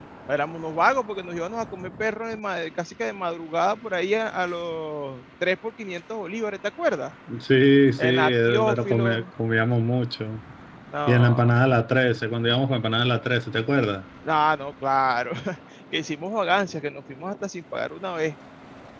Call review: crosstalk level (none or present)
present